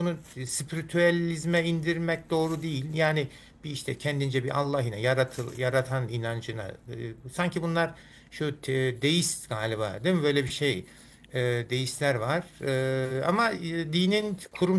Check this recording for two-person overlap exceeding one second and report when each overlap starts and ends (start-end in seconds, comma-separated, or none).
none